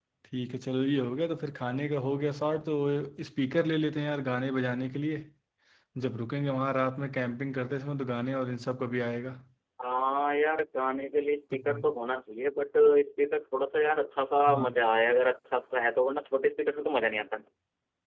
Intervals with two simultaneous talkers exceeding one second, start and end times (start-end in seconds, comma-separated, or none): none